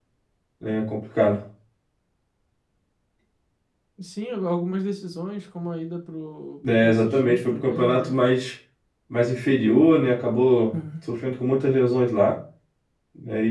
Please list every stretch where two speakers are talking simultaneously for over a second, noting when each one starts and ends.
6.8-8.1

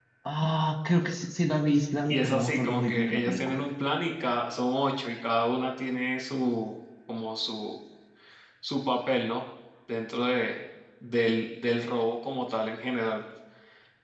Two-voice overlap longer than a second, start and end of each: 2.1-3.6

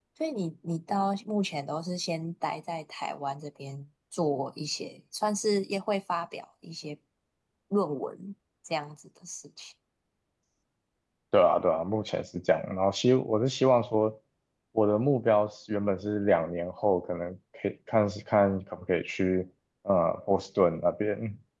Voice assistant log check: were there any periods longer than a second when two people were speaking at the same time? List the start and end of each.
none

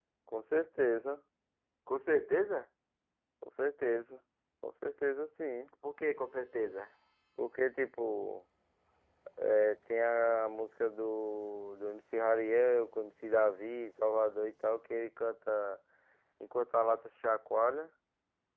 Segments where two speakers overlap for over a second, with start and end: none

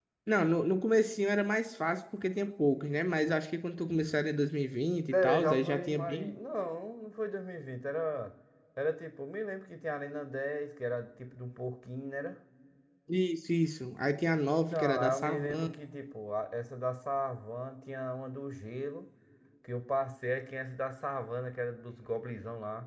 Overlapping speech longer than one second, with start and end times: 5.1-6.3, 14.5-15.7

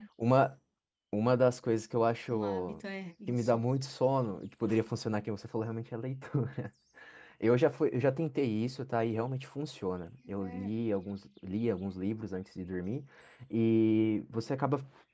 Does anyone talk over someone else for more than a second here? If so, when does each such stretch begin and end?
none

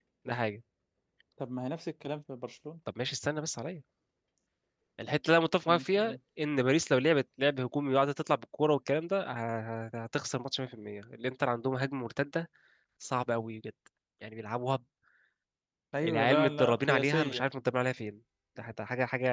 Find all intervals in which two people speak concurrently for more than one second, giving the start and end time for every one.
16.0-17.4

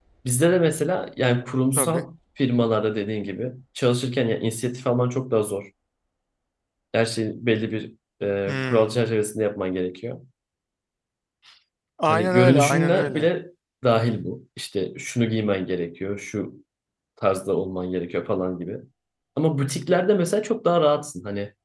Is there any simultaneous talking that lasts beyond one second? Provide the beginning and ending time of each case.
12.1-13.3

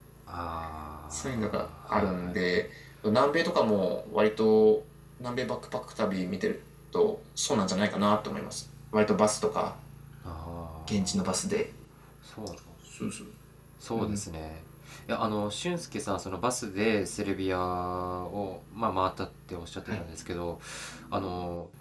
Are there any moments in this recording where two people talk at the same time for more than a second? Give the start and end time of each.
1.1-2.4

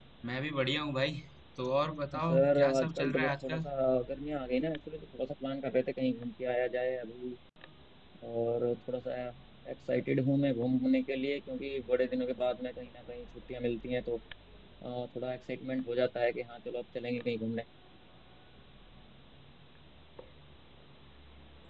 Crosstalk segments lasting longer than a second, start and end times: 2.3-3.6

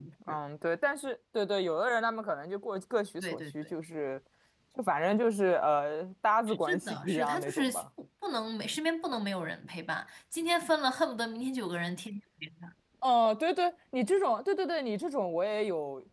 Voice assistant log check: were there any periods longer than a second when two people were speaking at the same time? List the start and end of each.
6.5-7.8

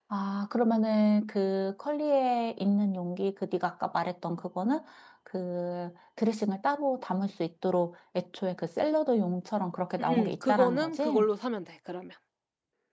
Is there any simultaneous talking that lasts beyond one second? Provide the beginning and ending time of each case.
10.0-11.2

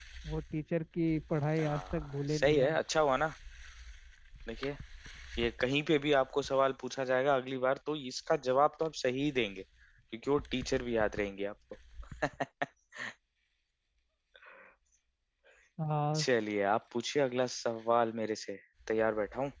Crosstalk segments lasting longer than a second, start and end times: 1.6-2.8

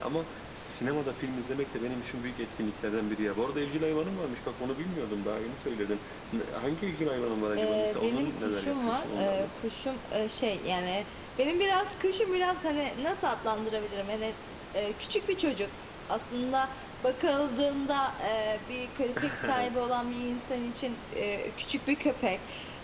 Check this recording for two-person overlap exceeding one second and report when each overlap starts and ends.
7.6-9.5

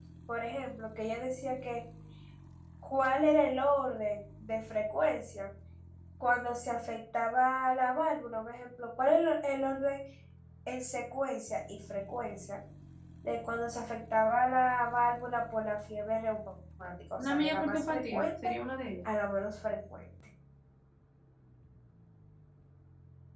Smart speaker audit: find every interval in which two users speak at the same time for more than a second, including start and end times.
17.2-18.6

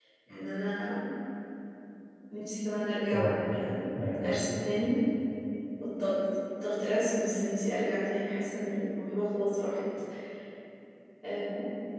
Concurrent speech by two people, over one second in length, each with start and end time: 3.1-4.6

